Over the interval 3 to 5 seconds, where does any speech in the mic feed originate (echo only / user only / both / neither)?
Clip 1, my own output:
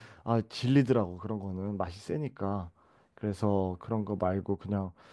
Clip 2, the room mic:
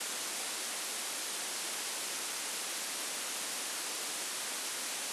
neither